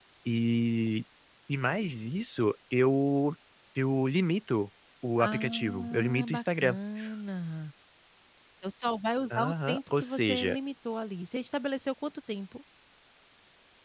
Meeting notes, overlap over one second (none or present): present